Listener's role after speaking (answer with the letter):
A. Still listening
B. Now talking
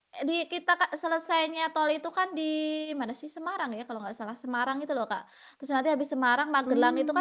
A